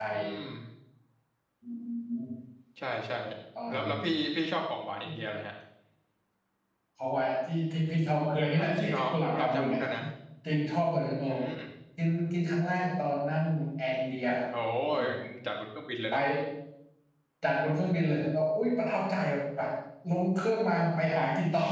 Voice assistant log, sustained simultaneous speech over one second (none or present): present